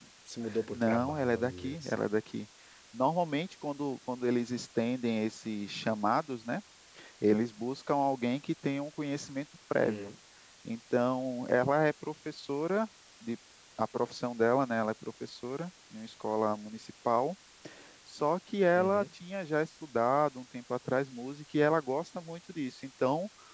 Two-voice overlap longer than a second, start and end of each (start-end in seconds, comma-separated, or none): 0.7-2.0